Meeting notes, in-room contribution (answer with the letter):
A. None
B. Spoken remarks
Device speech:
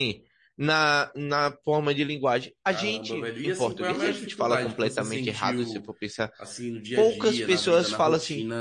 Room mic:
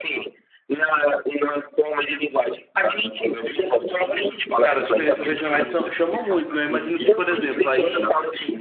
B